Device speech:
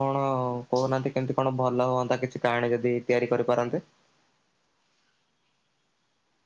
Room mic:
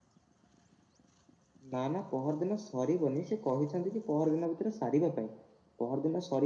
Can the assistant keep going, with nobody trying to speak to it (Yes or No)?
No